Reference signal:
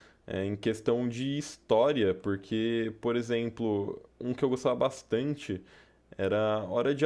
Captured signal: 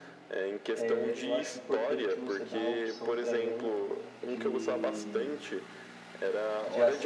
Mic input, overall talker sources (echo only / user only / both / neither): both